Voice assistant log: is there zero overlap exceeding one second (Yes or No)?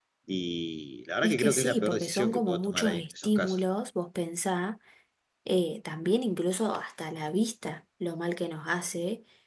No